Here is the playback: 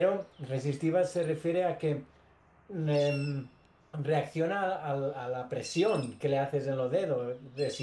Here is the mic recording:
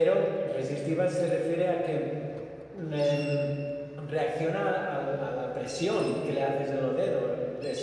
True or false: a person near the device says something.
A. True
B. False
B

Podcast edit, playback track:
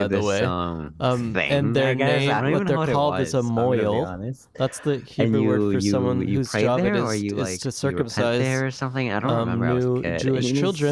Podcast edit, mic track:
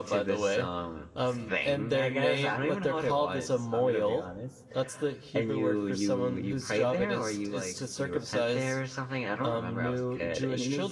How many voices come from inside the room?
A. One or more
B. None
B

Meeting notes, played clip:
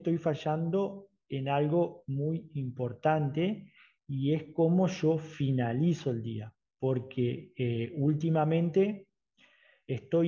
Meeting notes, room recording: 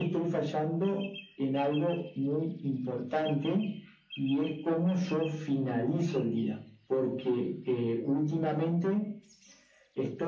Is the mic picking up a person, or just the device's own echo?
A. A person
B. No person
B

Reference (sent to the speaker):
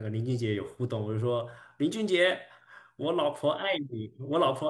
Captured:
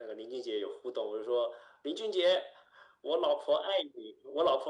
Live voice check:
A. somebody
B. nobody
B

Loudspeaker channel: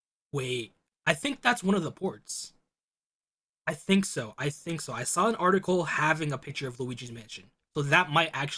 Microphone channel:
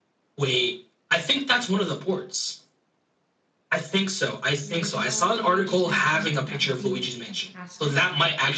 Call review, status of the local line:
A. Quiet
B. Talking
B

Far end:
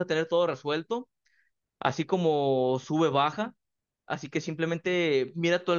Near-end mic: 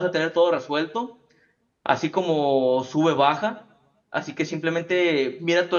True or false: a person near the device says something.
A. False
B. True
A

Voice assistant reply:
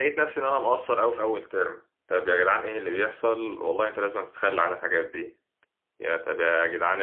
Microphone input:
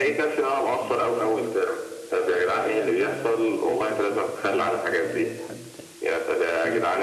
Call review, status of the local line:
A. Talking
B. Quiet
A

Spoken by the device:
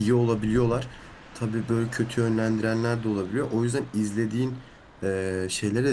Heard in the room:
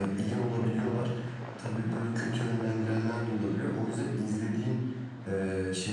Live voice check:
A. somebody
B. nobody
B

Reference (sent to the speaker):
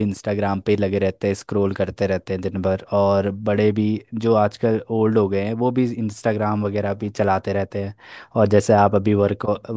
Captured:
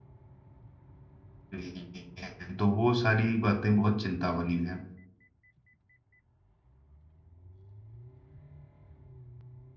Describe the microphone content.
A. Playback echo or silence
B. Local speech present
B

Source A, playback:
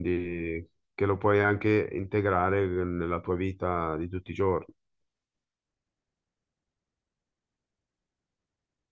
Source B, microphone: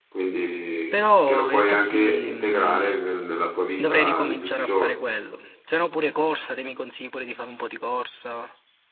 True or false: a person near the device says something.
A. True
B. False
A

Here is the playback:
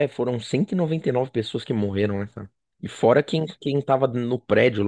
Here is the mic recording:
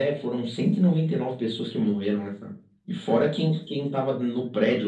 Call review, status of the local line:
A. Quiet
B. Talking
A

